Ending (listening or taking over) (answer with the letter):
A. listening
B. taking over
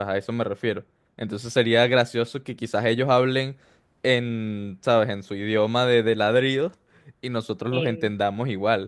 A